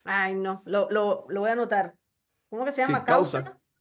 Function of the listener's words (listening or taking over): taking over